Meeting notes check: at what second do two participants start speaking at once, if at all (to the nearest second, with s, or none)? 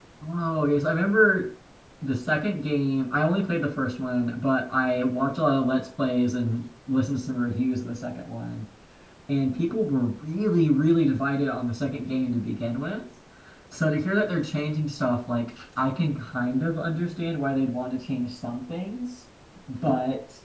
none